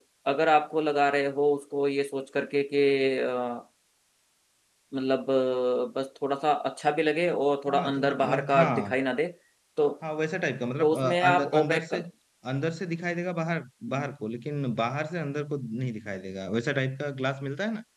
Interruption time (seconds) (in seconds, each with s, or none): 7.7 s